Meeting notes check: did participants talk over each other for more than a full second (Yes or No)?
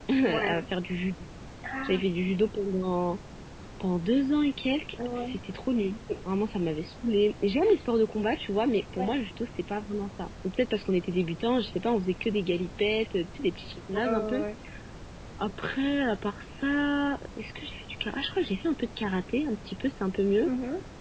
No